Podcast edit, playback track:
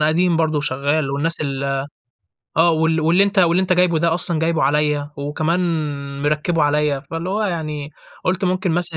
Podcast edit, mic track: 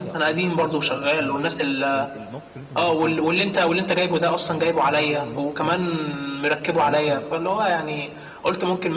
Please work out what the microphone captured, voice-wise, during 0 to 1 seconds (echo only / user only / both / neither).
both